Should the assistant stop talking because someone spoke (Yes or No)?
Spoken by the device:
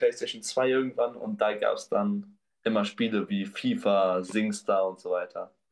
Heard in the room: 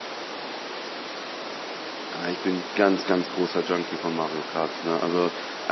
Yes